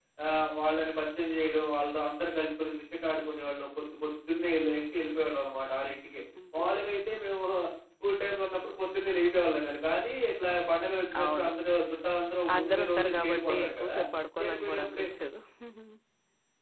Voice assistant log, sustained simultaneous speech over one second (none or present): present